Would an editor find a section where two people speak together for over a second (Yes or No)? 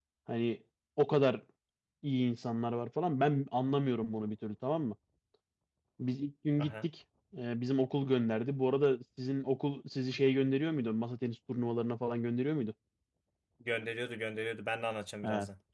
No